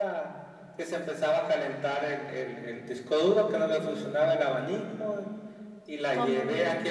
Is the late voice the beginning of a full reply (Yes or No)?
No